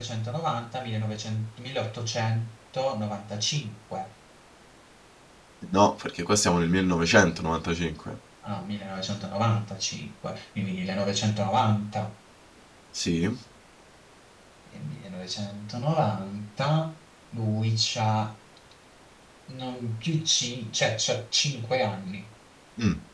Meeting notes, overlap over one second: none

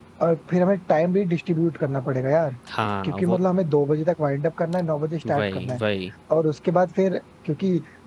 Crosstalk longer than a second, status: none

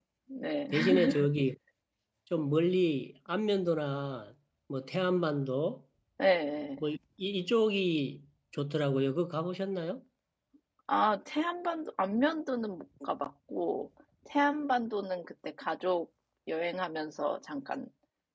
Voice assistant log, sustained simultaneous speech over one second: none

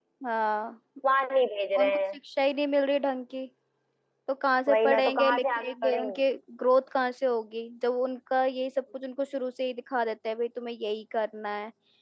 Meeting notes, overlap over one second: present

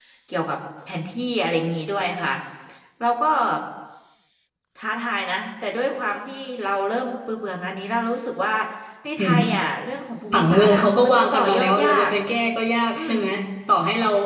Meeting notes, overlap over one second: present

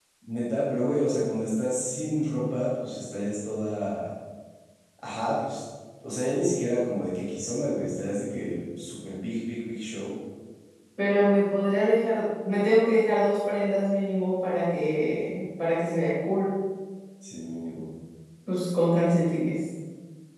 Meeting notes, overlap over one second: none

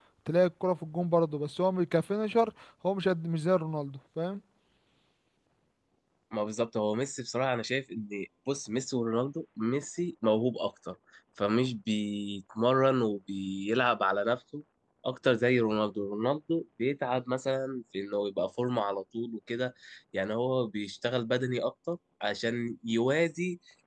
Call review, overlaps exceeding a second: none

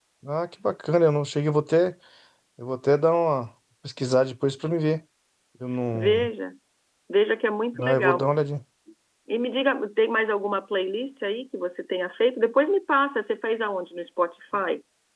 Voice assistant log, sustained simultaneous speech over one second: none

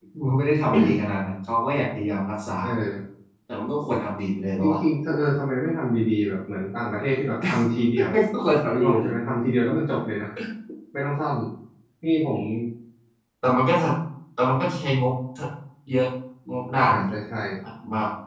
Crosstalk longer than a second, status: none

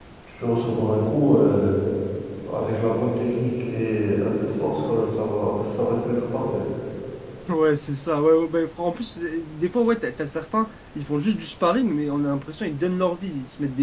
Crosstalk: none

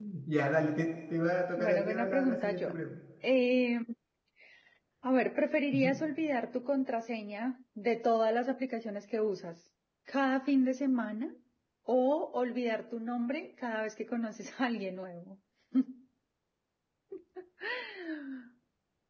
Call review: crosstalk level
present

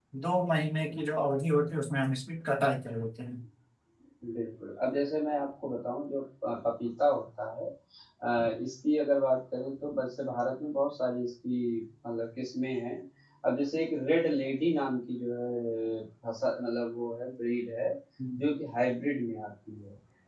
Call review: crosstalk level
none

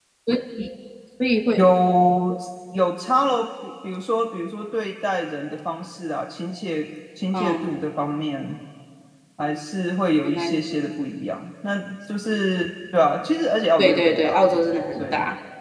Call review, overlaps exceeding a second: present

